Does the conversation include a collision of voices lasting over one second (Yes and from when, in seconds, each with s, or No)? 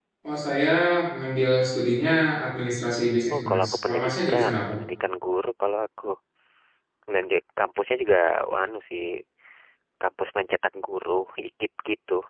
Yes, from 3.3 s